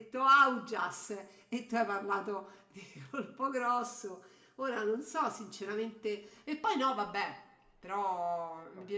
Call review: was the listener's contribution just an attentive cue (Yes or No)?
Yes